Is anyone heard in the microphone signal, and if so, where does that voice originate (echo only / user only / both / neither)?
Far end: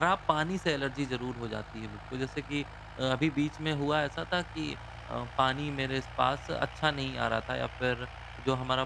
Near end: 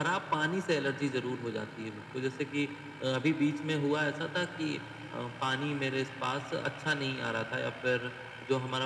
echo only